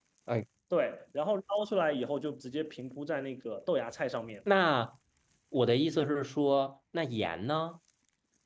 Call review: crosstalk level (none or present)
none